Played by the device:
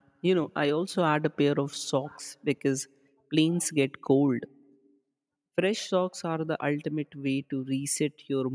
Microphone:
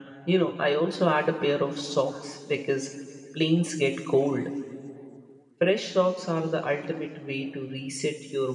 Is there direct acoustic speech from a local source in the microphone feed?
No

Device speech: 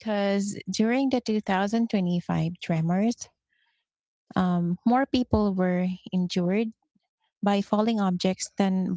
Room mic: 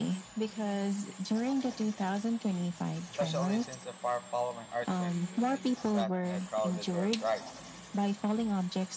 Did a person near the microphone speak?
Yes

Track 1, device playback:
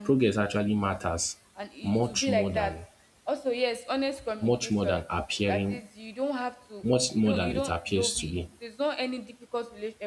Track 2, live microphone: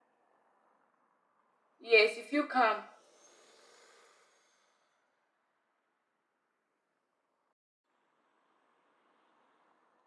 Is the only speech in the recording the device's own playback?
No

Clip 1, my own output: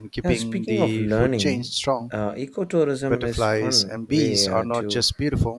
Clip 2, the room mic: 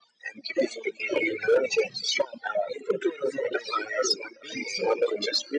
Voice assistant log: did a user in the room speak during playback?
No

